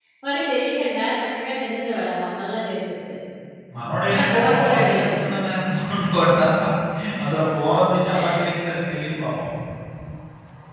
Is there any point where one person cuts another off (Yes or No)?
Yes